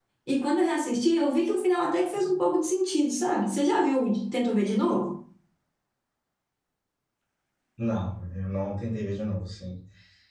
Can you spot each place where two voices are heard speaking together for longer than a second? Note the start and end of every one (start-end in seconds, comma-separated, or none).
none